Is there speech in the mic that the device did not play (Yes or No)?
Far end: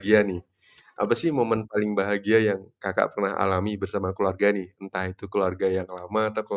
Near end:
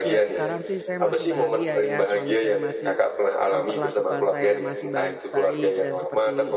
Yes